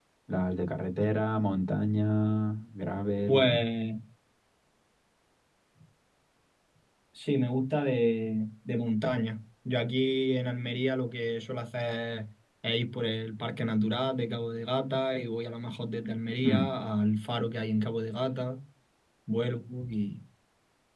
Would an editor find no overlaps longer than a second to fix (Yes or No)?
Yes